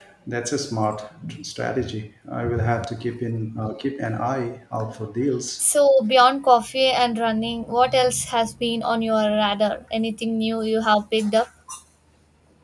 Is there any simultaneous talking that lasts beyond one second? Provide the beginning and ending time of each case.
none

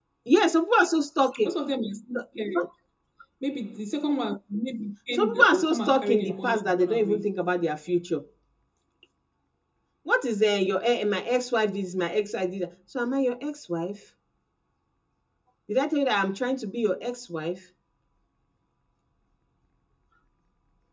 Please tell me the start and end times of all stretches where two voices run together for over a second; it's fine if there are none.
5.1-7.2

